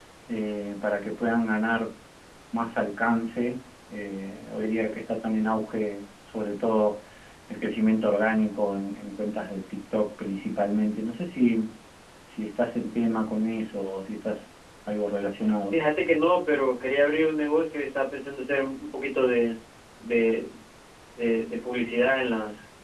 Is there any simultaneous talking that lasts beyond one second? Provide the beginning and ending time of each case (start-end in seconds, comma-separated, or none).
none